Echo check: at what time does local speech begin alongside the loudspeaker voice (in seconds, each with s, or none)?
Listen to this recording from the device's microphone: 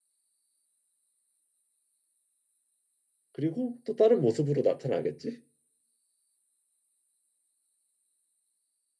3.3 s